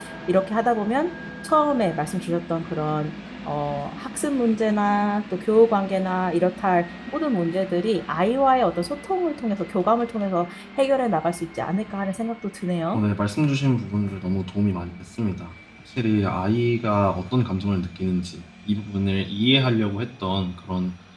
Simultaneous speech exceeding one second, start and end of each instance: none

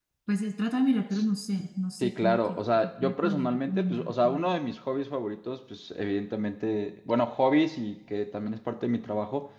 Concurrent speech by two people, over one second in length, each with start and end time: 2.0-4.5

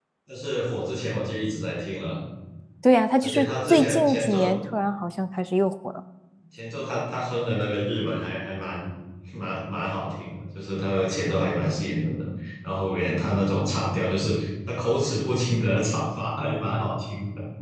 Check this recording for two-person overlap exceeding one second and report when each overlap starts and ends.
3.2-4.5

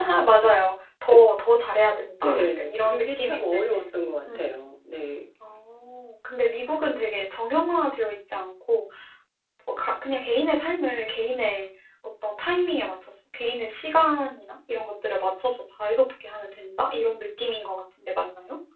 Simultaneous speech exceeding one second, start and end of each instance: 2.2-3.6

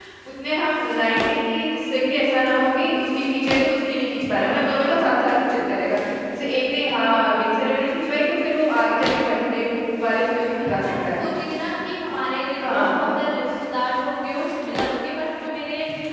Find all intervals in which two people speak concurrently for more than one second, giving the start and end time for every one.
10.0-11.2

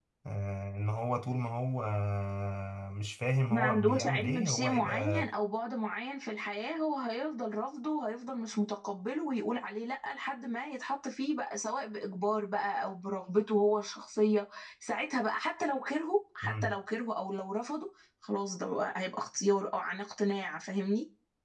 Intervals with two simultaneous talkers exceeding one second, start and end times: 3.5-5.2

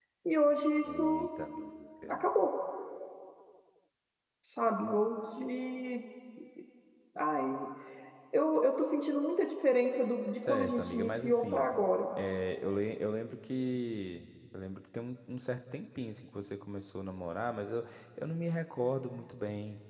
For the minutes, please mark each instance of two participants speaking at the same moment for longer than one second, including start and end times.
10.3-11.7

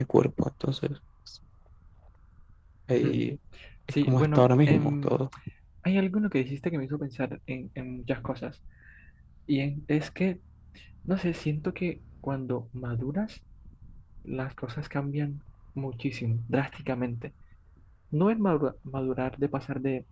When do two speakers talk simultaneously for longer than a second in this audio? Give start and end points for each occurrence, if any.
4.0-5.2

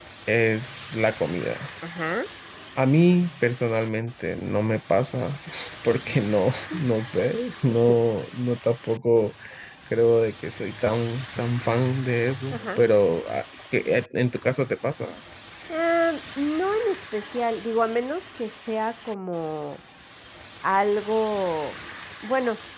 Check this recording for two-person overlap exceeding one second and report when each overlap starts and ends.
none

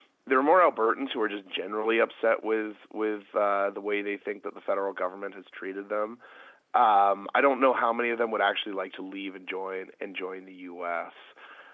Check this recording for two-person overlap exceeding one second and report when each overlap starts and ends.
none

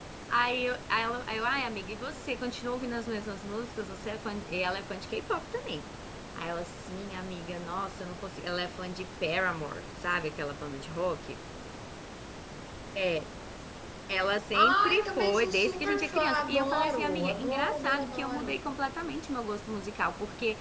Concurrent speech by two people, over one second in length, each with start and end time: 14.5-18.6

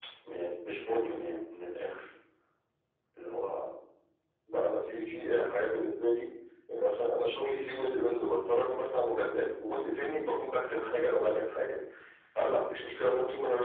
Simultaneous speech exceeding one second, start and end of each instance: none

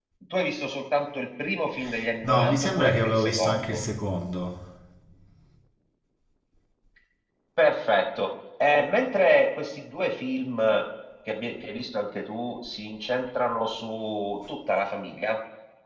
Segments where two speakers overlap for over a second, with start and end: 2.2-3.8

